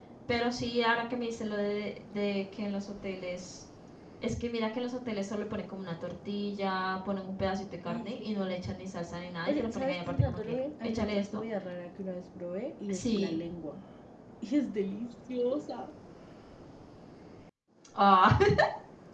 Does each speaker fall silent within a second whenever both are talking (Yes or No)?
No